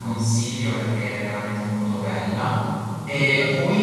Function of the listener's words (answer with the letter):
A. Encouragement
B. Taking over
A